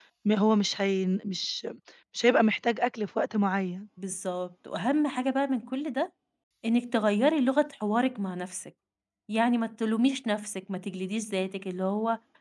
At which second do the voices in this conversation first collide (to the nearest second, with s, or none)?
none